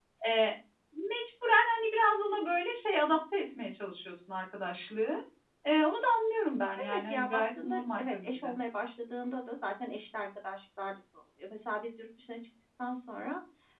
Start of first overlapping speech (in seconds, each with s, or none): 6.8 s